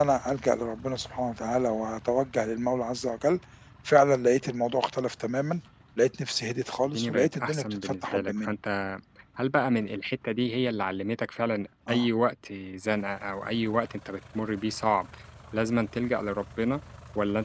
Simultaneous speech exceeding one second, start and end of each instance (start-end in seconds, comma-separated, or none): 6.8-8.5